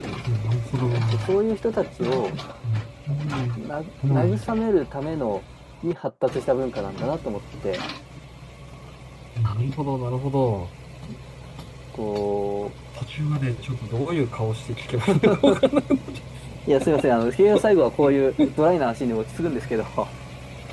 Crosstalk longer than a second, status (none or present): none